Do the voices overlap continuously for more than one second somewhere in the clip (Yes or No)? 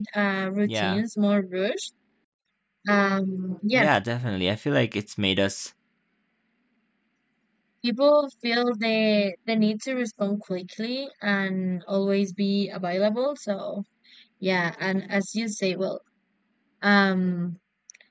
No